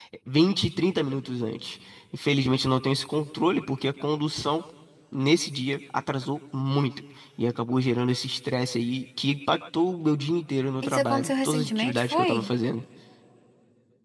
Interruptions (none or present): present